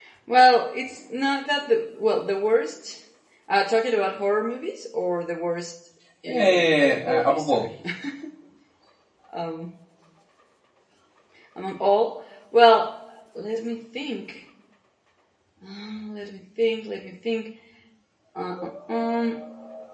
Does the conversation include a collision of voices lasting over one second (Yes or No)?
Yes